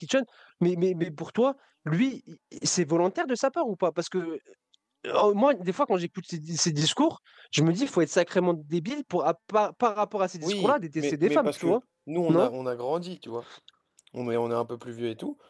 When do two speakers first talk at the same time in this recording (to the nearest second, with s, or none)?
10 s